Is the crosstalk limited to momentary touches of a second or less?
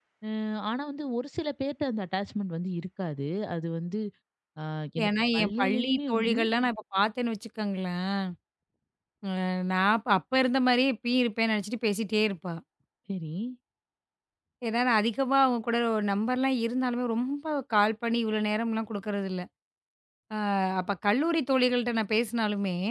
No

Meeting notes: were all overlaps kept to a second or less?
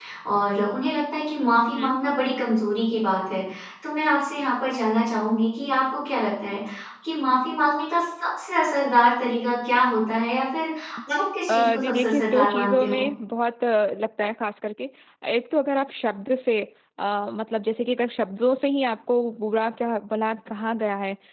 No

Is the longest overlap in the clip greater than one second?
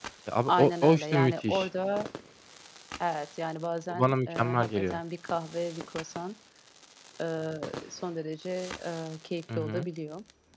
Yes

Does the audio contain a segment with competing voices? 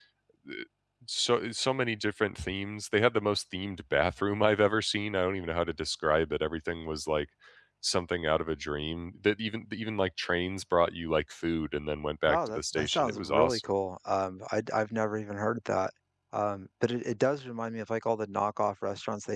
Yes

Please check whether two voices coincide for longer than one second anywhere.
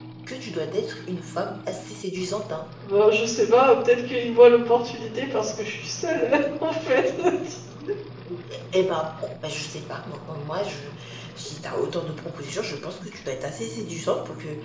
No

